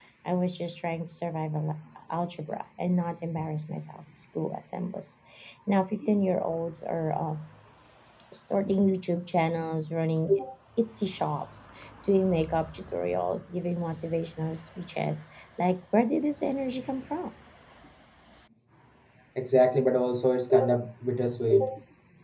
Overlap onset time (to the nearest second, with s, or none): none